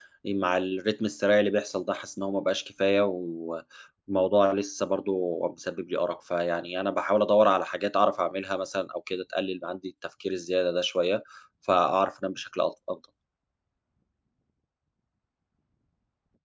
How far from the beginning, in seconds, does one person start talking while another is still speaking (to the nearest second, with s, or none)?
none